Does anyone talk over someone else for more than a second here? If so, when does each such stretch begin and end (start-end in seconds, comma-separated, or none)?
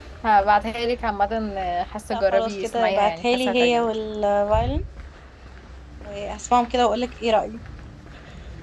2.1-3.9